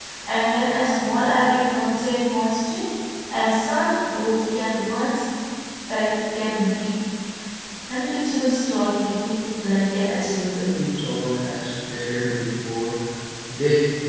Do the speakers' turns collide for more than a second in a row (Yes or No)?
No